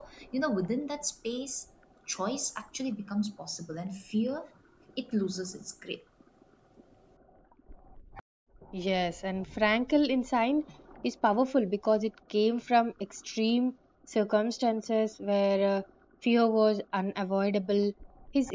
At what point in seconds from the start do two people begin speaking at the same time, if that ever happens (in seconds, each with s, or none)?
none